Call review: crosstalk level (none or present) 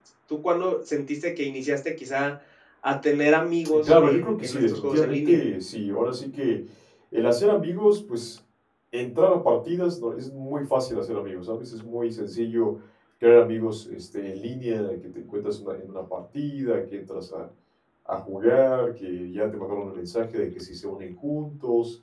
present